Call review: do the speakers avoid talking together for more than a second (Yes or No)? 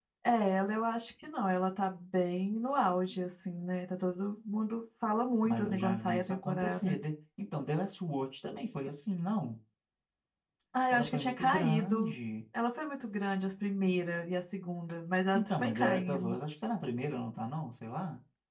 No